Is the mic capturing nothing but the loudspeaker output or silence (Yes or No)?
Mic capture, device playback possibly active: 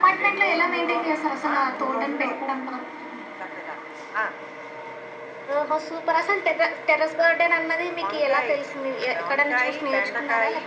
Yes